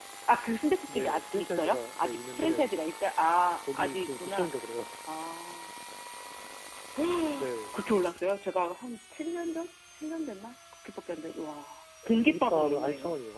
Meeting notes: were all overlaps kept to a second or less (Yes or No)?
No